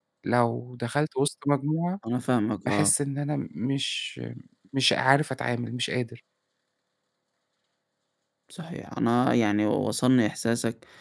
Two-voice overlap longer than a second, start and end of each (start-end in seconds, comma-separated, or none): none